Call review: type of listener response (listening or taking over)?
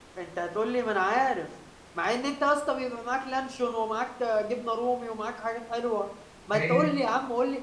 listening